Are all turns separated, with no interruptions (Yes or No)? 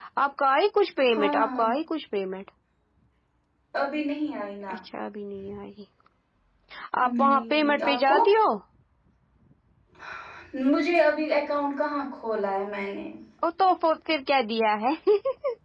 No